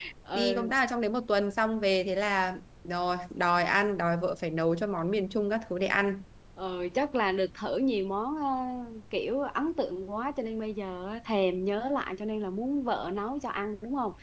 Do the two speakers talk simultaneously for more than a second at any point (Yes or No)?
No